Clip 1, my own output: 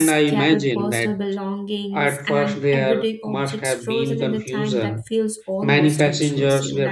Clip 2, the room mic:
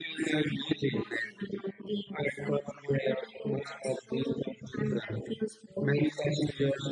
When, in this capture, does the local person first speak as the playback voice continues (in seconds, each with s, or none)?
none